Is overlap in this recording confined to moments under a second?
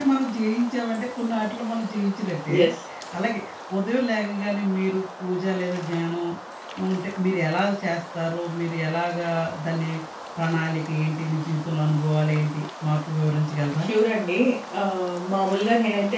Yes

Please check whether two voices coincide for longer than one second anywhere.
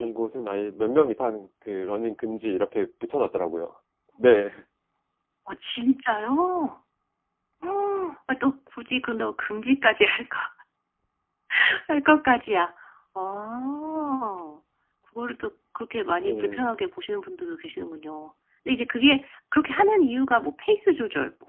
No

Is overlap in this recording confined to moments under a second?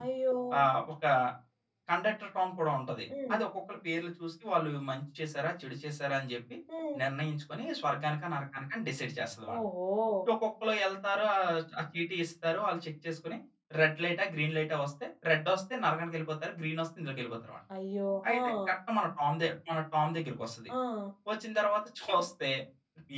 Yes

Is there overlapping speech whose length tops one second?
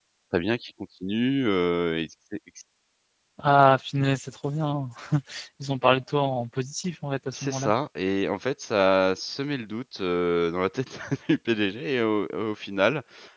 No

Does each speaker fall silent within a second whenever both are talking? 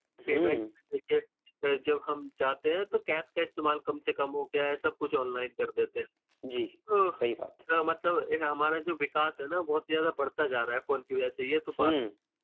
Yes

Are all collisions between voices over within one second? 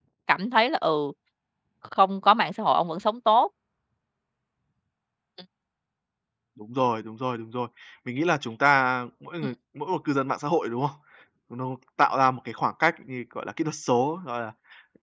Yes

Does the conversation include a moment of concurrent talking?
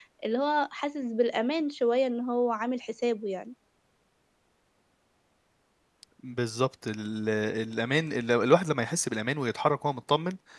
No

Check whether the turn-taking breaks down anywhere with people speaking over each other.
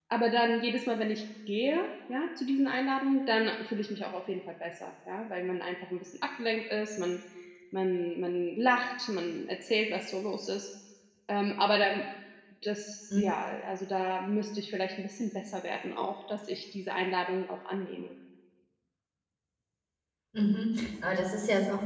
No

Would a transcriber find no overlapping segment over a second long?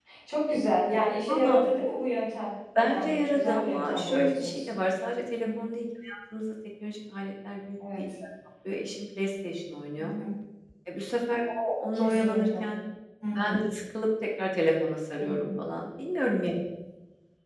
No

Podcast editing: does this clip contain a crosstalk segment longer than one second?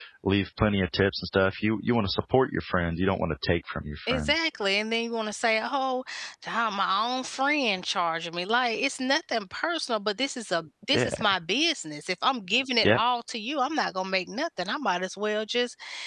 No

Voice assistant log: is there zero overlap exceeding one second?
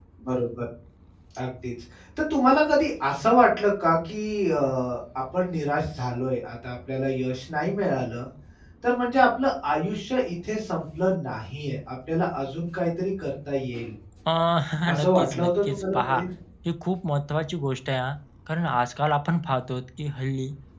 No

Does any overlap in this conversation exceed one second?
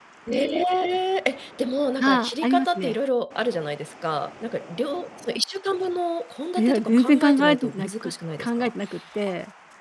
Yes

